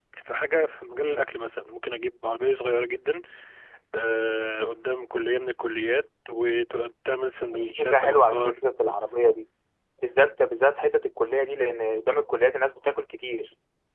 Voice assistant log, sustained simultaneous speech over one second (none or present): present